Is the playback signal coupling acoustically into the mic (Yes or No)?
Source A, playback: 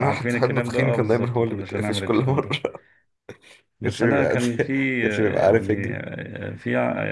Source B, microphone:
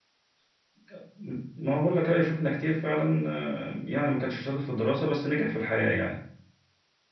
No